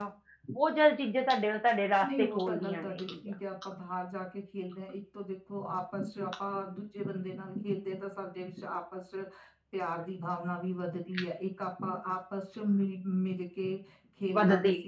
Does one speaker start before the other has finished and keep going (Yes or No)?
Yes